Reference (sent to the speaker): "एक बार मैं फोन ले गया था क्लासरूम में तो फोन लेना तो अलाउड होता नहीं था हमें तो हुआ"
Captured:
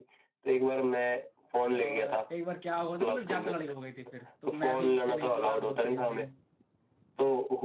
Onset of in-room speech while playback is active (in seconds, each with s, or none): 1.8 s